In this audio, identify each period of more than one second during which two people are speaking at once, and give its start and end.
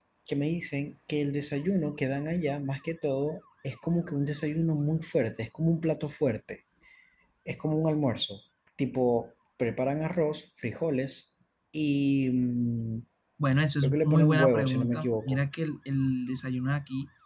13.8-15.4

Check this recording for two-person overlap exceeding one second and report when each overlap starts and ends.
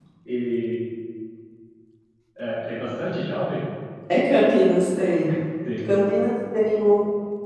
none

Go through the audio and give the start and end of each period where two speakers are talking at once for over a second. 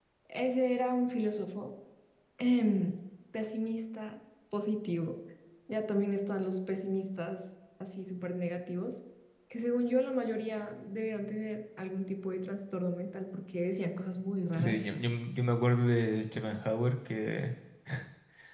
none

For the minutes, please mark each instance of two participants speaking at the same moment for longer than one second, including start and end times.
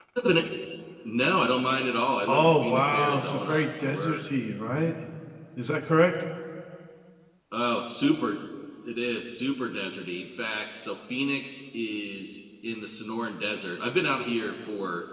2.3-4.2

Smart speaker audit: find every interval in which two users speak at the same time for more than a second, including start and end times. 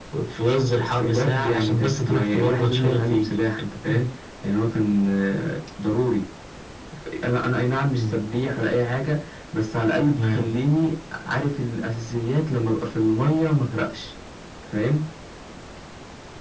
0.8-3.3

